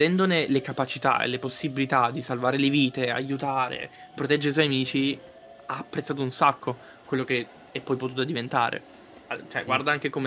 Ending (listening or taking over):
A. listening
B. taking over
A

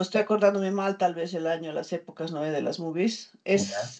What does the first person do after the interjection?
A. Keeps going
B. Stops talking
A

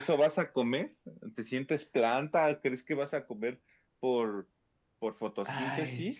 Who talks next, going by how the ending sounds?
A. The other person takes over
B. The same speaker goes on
A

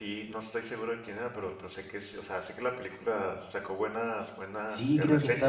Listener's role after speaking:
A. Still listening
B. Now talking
B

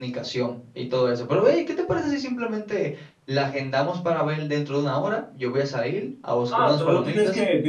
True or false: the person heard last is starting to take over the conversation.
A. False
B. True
B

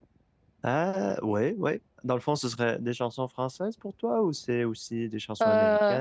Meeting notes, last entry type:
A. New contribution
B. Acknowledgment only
A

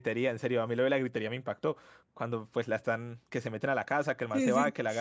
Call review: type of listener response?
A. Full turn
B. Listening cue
B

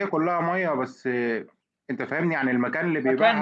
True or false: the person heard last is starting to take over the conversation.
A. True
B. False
A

